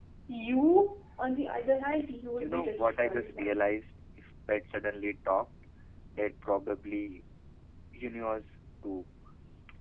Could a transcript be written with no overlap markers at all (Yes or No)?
No